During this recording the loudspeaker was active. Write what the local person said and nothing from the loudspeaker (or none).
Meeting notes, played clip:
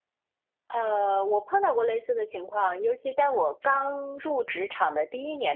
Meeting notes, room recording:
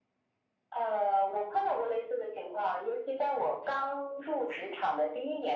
none